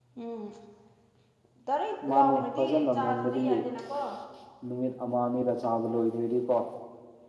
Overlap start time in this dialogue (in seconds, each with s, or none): 2.1 s